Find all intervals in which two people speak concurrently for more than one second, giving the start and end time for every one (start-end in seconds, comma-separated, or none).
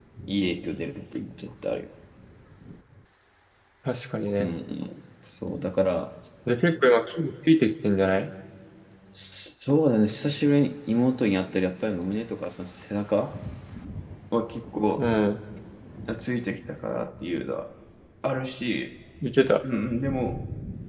none